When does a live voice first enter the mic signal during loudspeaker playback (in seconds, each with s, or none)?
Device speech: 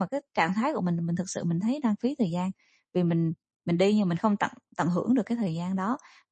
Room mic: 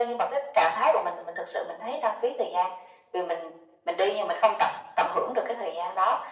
none